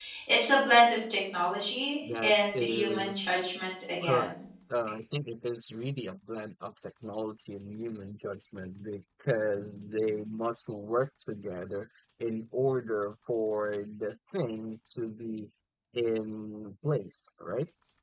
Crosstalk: present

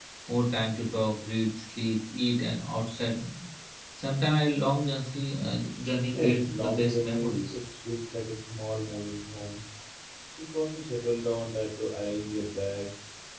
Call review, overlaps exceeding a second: present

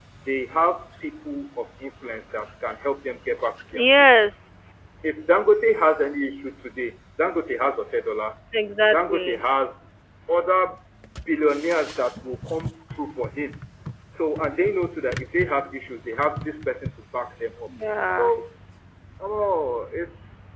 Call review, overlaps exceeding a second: none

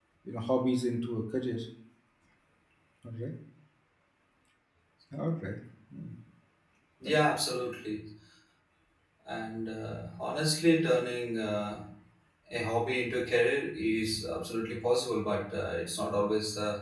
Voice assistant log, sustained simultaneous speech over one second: none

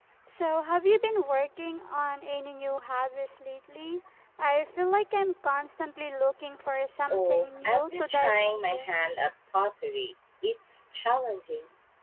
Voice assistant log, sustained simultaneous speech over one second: present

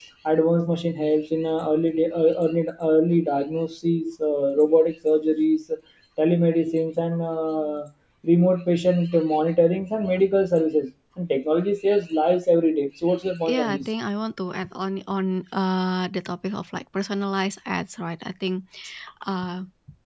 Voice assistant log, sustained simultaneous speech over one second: none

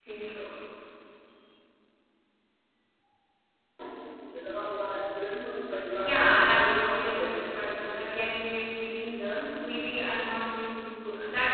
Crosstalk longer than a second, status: present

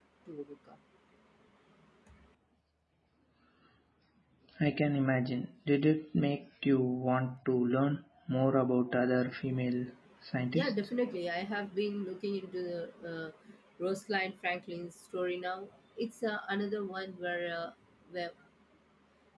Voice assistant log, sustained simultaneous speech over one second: none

